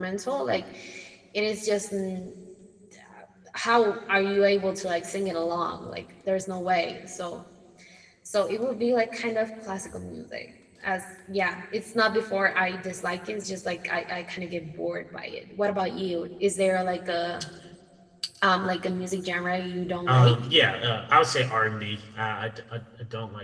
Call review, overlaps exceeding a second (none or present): none